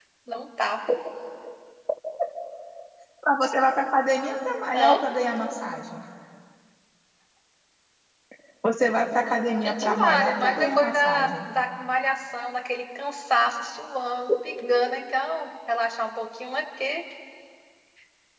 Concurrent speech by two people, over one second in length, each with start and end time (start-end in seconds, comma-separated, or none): 9.6-11.3